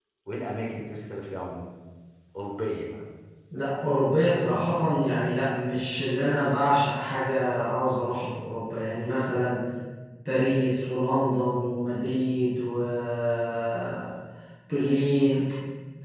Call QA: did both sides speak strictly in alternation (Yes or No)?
Yes